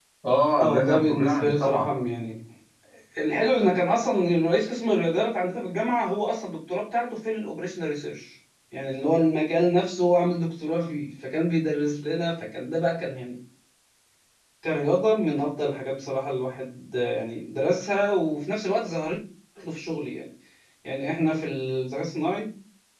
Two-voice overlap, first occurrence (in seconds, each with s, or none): 0.6 s